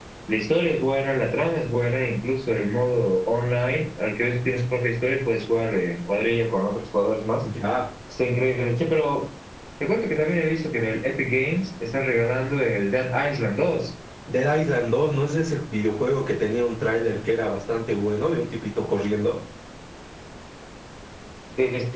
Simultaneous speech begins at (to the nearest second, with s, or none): none